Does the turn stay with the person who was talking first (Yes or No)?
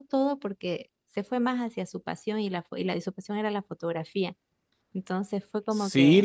No